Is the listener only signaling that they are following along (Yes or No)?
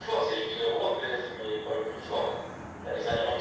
Yes